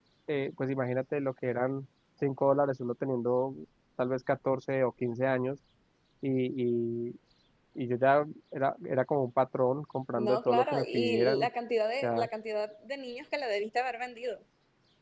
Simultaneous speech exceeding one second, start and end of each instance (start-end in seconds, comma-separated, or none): 10.2-11.5